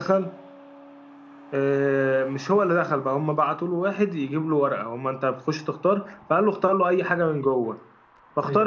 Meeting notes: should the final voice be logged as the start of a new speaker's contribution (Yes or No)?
No